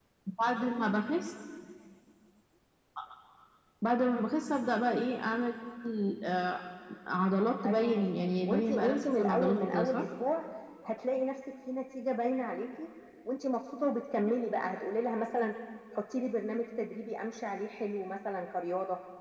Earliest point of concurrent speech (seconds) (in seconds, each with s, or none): 7.6 s